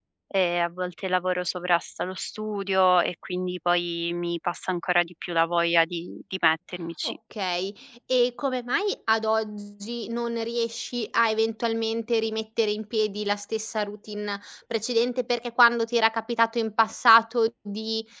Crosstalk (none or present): none